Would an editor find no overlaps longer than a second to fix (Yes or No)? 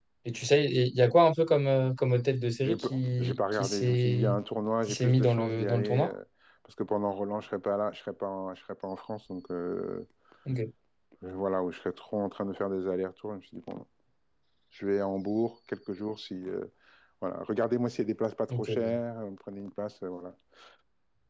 No